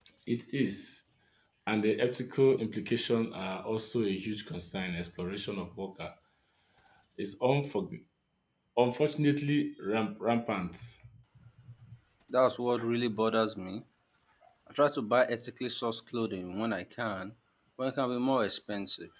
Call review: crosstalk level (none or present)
none